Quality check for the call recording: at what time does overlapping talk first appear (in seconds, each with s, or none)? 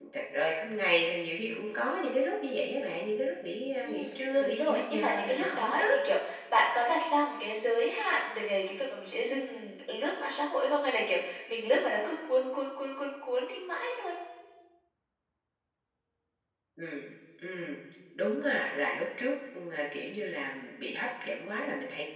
3.8 s